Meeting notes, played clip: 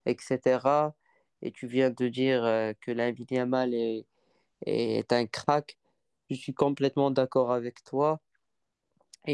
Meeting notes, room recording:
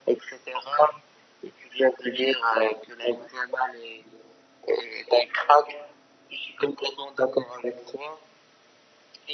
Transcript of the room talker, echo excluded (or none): none